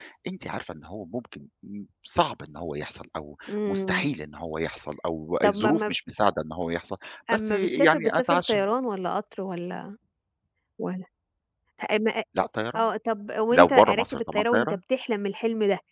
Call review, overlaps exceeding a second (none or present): present